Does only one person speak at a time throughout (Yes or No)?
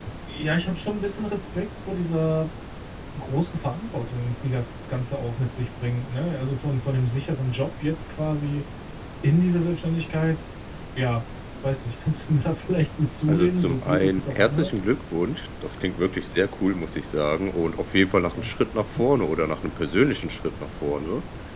No